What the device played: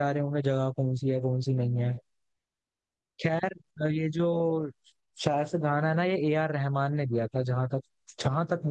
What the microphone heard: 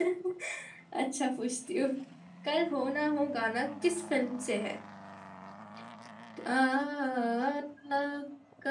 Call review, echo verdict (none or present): none